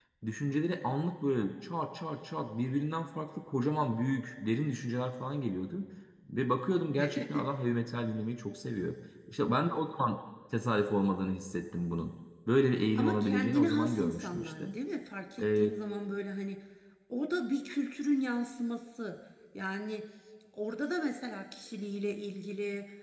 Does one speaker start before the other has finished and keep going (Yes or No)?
Yes